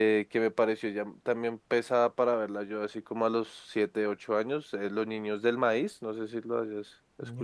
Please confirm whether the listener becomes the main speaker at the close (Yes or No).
Yes